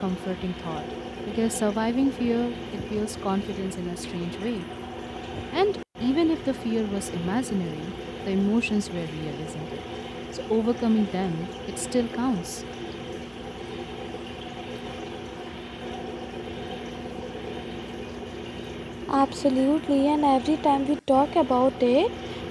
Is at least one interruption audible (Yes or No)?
No